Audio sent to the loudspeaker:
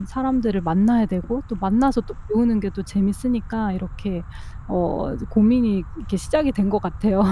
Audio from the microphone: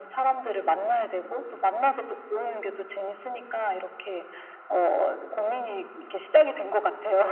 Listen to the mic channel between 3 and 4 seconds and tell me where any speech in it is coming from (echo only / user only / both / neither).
echo only